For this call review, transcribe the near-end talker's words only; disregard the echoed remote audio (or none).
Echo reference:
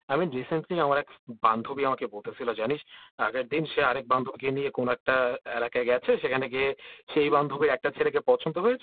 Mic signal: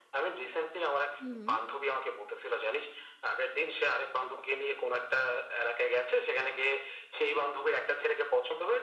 হুম।